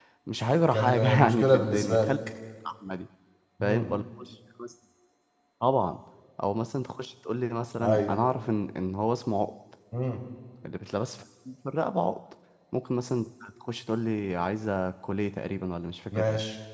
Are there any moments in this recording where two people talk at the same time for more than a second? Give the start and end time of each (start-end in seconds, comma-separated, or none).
0.7-2.1